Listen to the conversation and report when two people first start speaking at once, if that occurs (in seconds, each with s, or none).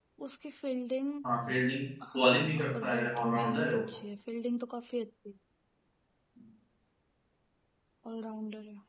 2.1 s